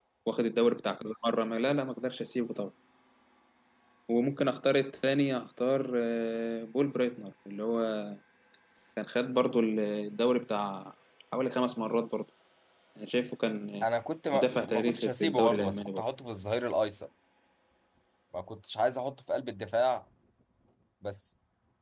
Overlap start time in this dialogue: 14.3 s

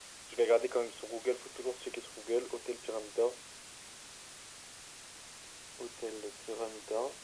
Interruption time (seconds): none

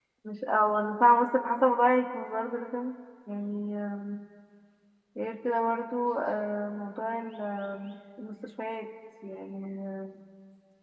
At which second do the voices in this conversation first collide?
none

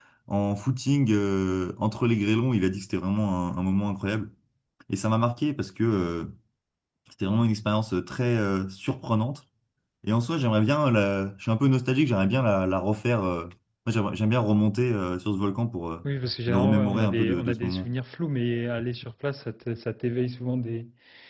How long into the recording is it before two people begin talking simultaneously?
16.5 s

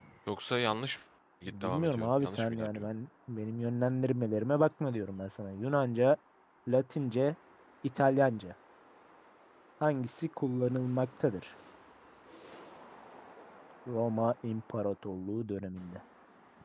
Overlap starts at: 1.5 s

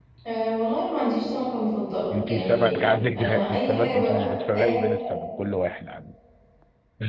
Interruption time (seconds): 2.1 s

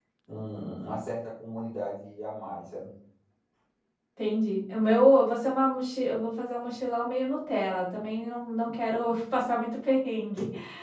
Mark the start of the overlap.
none

